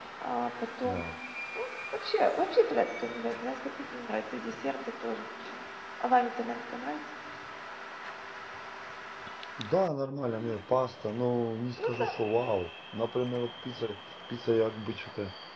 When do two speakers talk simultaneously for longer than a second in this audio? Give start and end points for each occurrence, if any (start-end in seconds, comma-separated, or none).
none